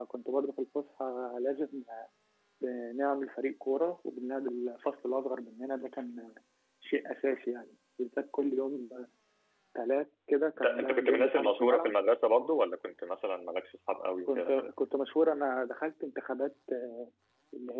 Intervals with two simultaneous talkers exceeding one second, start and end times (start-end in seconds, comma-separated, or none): 10.6-12.0